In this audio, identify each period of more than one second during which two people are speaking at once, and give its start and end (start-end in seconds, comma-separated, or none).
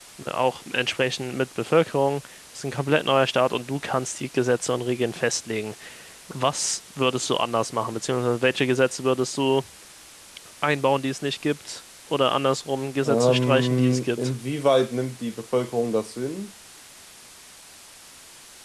13.1-14.3